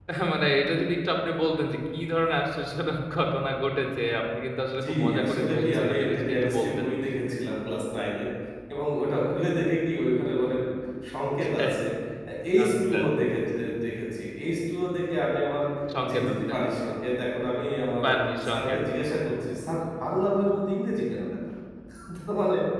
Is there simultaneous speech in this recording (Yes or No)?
Yes